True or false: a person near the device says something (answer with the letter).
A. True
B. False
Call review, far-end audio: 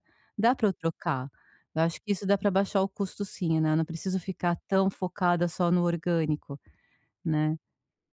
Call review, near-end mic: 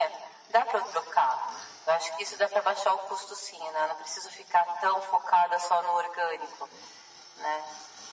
B